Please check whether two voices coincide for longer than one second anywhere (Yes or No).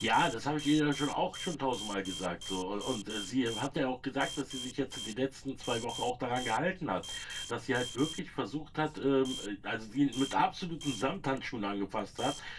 No